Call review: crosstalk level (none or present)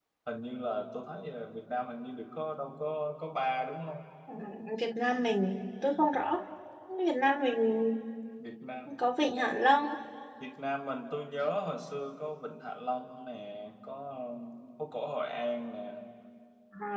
none